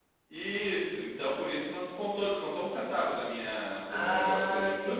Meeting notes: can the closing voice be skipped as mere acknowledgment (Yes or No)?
No